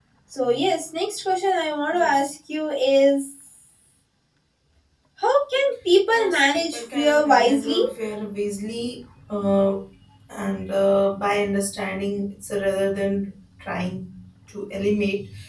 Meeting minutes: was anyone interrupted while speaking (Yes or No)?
Yes